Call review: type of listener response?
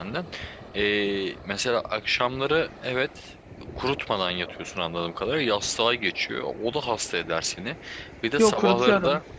listening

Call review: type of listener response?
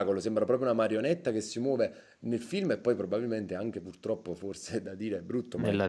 listening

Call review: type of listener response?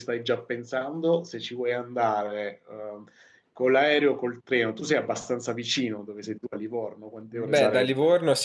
taking over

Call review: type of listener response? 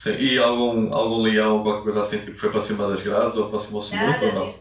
taking over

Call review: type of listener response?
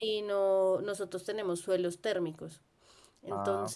listening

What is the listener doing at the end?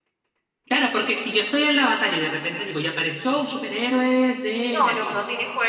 taking over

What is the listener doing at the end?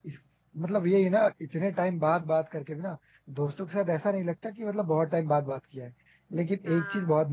listening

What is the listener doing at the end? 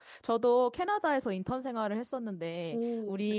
listening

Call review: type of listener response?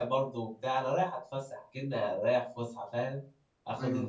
listening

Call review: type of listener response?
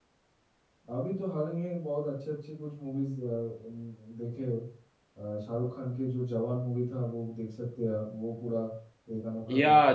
taking over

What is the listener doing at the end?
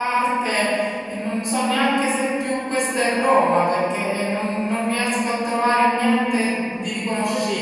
taking over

